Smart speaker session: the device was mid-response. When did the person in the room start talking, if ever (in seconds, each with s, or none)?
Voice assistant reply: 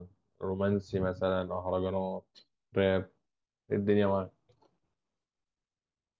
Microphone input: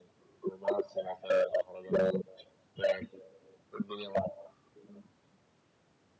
none